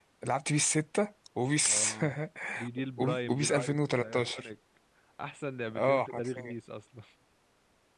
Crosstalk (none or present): present